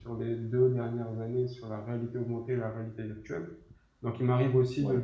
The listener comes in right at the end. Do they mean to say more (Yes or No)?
No